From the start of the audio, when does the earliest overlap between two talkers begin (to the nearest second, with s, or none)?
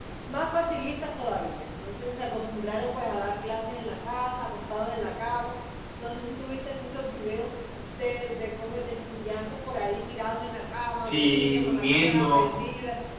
11 s